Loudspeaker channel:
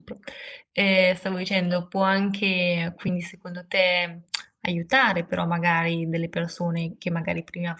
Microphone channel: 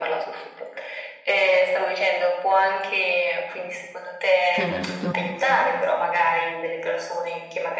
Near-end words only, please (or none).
Certo.